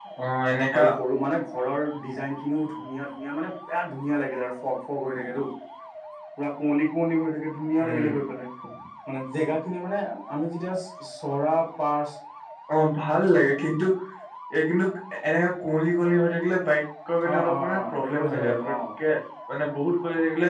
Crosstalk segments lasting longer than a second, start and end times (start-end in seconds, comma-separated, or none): 17.3-18.7